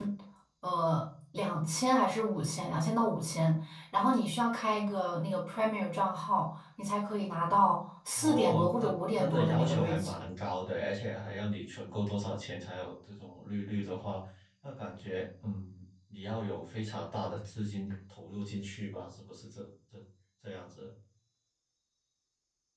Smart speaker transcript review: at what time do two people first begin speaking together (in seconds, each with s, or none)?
8.1 s